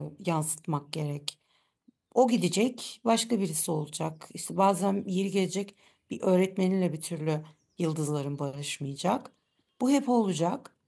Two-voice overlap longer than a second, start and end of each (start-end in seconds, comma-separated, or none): none